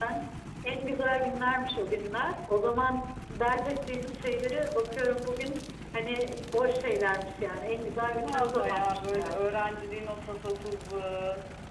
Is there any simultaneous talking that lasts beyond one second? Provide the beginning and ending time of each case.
8.1-9.7

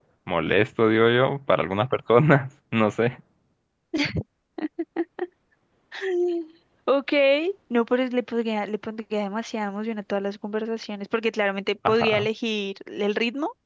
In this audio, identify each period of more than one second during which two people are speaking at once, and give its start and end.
none

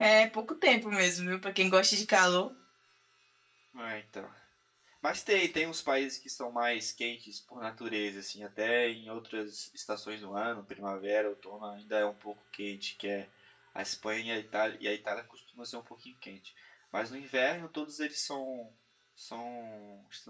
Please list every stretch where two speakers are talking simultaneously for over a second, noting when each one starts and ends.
none

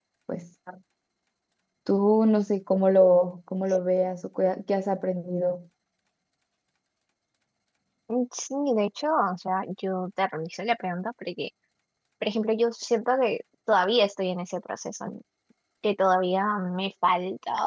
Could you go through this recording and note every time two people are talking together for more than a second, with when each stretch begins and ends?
none

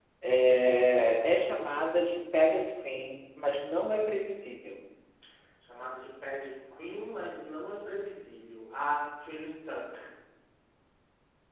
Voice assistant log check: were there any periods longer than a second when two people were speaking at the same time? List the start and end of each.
none

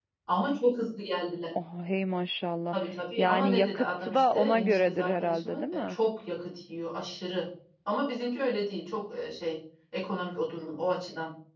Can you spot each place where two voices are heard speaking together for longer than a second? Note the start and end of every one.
3.2-6.0

